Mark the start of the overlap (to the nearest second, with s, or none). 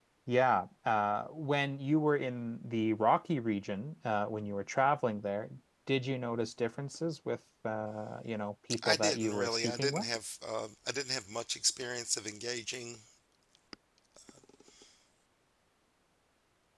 9 s